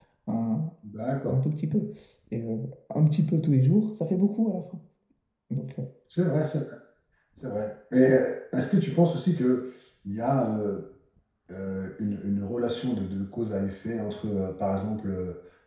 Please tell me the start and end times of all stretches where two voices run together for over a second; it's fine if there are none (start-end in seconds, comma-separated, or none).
none